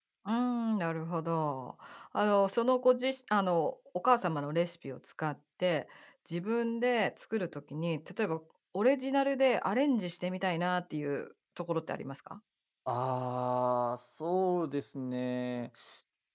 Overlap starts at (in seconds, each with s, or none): none